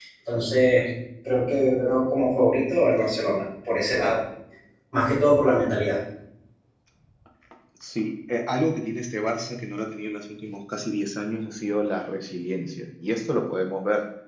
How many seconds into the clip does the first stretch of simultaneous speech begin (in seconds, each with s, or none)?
none